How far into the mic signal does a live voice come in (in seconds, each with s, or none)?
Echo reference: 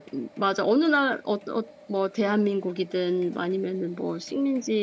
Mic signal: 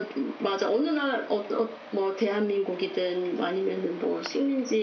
none